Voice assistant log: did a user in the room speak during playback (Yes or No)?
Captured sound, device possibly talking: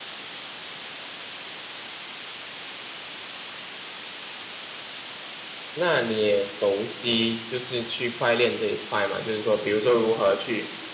Yes